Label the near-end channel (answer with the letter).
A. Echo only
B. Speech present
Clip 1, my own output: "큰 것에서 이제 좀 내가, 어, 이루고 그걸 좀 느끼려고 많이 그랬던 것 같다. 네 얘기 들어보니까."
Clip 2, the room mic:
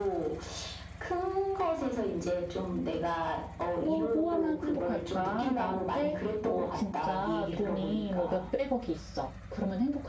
B